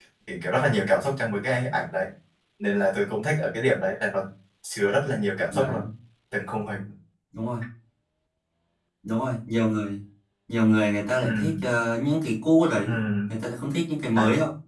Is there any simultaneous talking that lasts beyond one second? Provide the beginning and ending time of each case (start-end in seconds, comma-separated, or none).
none